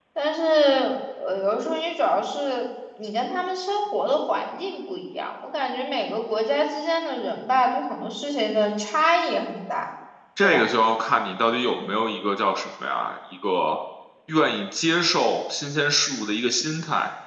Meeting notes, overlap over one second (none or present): none